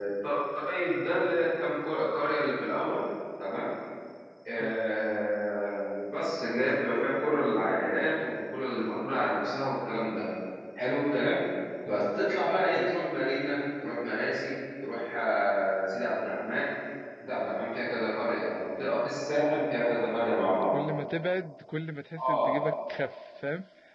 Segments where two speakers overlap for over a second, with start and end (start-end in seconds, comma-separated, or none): none